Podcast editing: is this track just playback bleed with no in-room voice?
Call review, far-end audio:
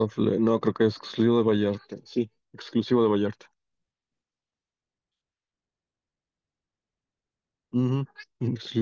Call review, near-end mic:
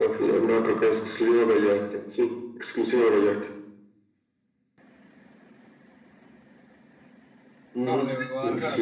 No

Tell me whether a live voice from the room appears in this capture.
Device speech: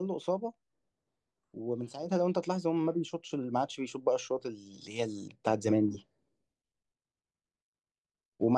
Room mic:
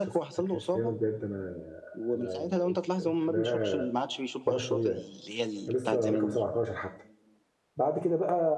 Yes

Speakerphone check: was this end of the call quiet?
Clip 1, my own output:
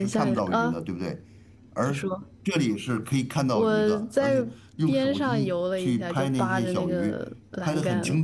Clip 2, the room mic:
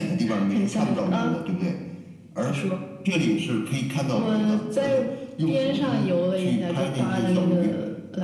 Yes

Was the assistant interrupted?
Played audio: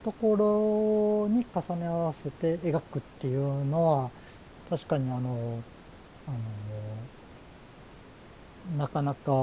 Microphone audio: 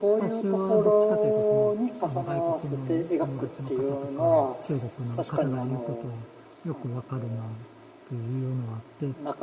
Yes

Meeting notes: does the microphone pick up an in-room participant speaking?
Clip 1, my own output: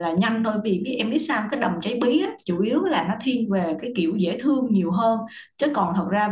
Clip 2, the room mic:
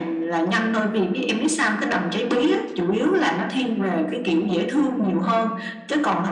No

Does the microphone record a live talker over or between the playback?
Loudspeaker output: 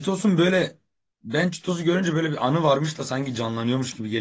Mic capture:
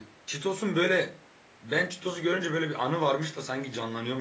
No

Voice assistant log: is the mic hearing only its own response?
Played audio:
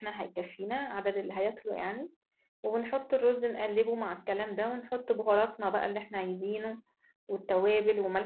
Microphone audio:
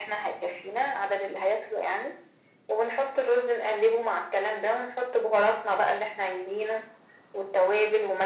Yes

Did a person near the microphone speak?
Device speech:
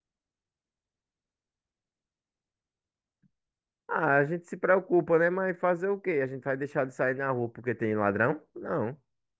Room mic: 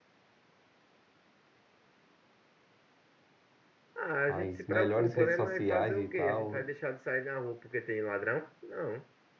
Yes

